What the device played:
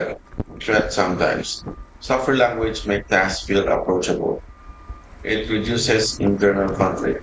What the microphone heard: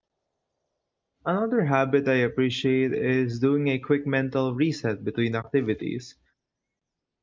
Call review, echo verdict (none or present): none